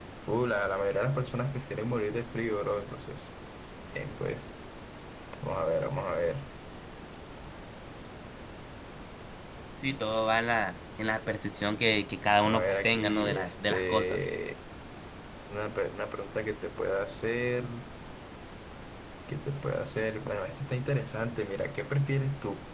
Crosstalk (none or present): present